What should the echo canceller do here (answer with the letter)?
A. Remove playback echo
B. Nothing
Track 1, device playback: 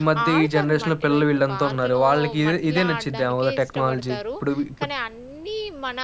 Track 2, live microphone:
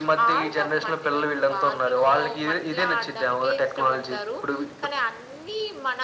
A